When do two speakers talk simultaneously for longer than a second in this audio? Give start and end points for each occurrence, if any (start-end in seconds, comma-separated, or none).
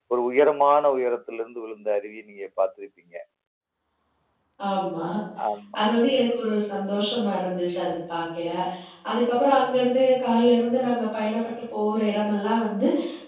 none